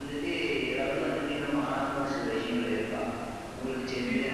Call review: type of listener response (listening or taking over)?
taking over